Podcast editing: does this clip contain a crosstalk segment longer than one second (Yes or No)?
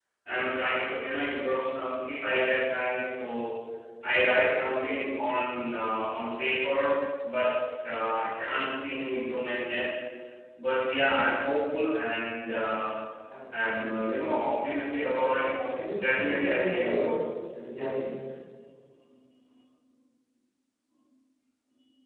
Yes